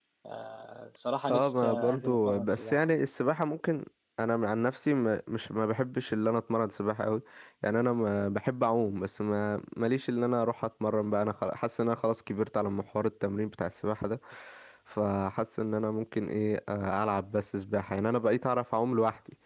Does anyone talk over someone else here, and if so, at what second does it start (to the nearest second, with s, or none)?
1 s